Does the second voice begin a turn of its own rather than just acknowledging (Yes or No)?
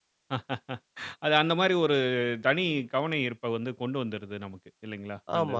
Yes